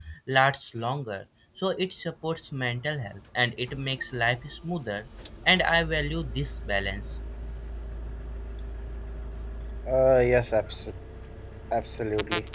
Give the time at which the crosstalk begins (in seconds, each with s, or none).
none